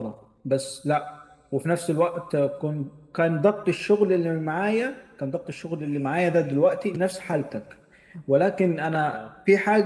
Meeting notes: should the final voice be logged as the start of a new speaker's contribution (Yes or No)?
No